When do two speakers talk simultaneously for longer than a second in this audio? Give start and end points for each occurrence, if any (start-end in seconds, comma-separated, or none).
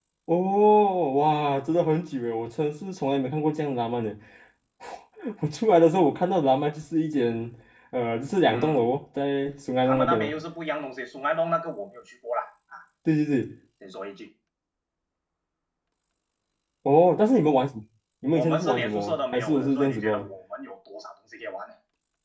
18.3-20.1